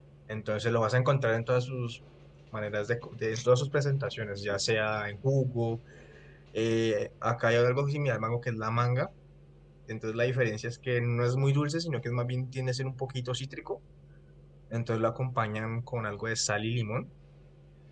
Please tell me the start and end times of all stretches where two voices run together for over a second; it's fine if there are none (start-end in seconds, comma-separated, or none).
none